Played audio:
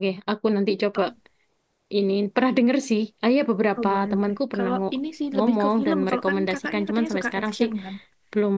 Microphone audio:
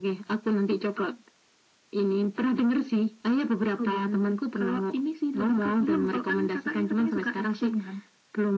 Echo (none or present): present